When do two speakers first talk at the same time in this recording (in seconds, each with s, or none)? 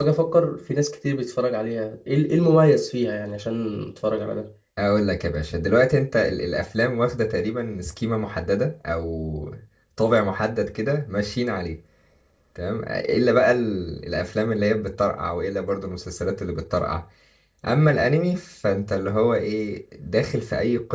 none